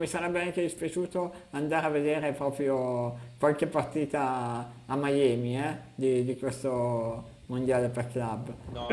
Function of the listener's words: taking over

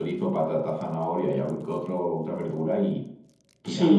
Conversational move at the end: taking over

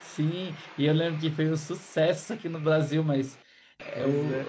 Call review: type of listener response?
listening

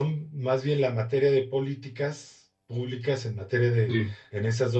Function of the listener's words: listening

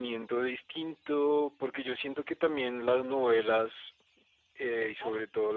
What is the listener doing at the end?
listening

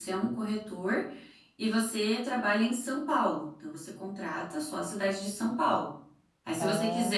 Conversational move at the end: listening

